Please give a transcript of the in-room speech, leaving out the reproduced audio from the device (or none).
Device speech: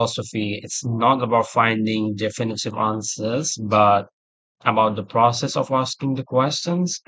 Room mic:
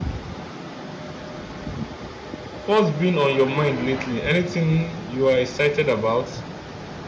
what's been on your mind lately? Anything you are excited about?